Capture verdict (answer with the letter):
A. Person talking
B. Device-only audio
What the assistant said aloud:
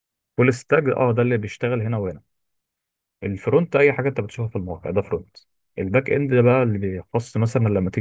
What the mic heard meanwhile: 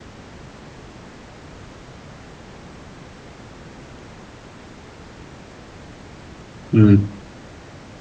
A